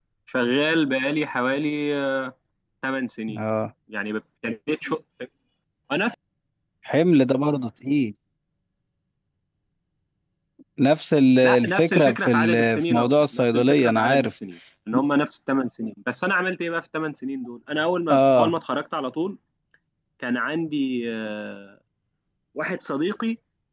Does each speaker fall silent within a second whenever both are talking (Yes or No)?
No